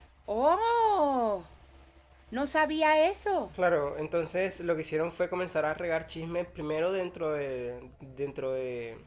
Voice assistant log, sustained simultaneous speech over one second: none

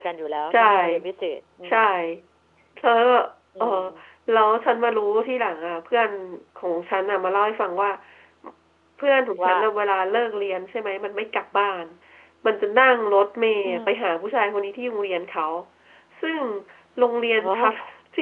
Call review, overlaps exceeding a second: none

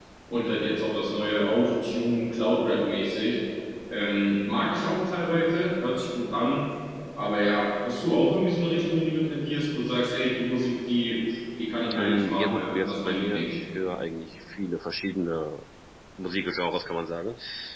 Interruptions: present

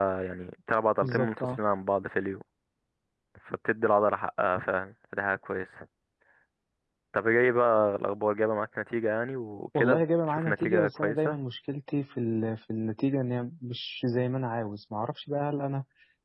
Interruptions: present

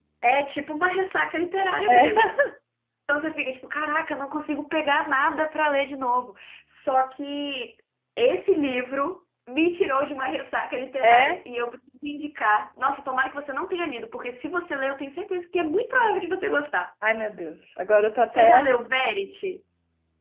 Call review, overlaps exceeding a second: none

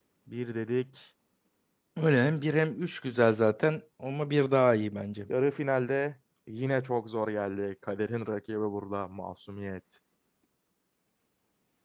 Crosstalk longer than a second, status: none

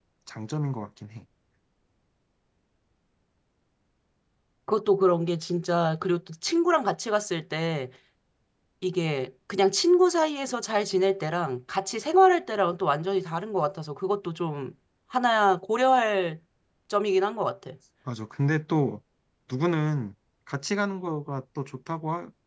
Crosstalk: none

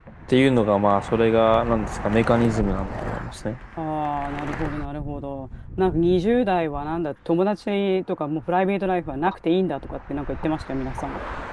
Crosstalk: none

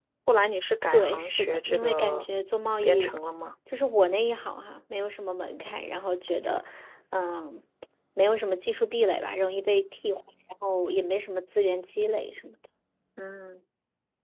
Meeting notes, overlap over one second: present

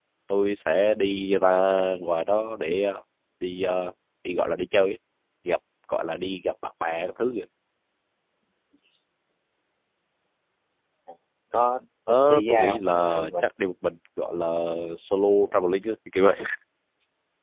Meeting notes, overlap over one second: present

